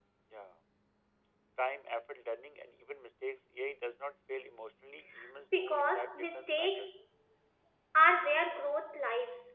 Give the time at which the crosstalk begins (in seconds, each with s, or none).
5.6 s